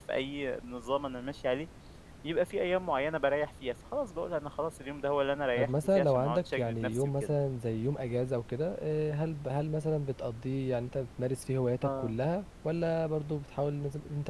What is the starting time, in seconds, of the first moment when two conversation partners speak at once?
5.6 s

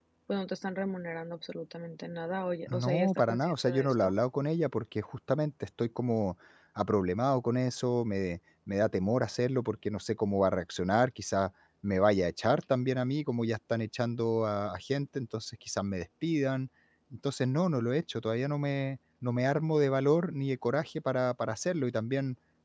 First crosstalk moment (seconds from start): 2.7 s

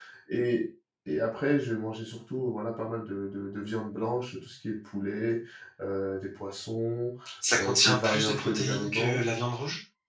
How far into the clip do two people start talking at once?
7.5 s

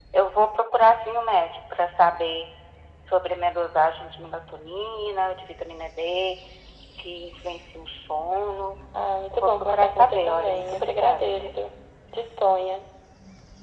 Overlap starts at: 9.3 s

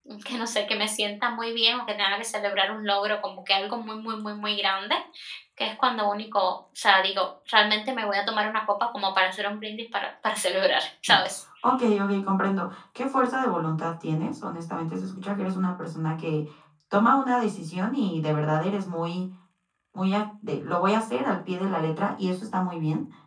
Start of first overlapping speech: none

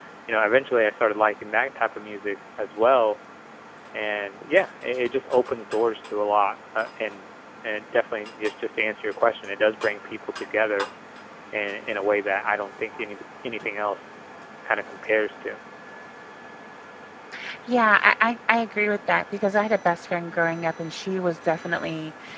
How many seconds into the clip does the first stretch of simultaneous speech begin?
none

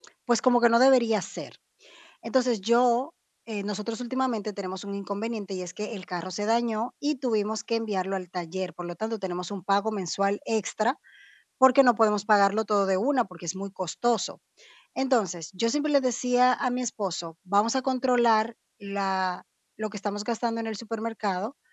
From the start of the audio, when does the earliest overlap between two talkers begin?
none

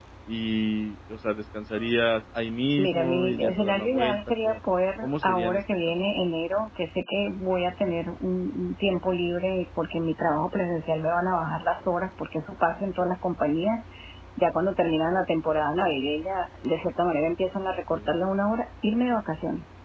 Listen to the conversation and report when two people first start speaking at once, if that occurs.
2.8 s

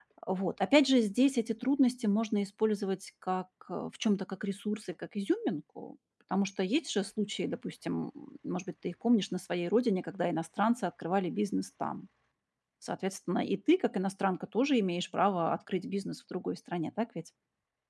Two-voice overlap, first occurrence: none

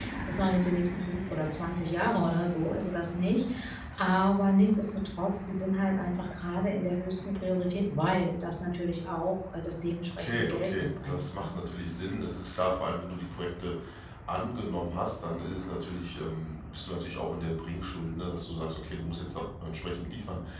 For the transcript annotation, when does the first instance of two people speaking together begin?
10.2 s

